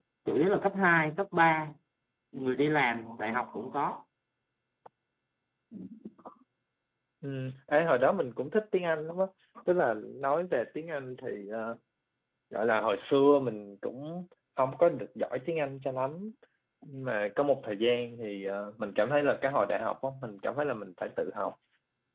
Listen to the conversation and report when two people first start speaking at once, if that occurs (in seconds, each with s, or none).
none